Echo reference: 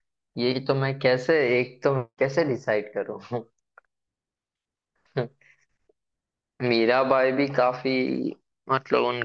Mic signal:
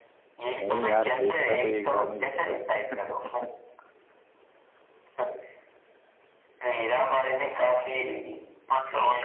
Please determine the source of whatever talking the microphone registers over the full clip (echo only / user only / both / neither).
both